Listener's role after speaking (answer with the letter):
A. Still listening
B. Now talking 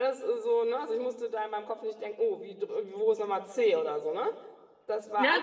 A